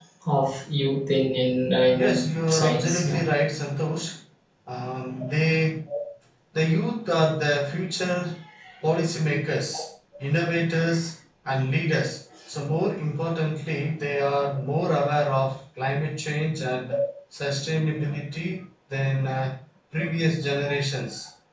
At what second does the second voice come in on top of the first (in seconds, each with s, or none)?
1.9 s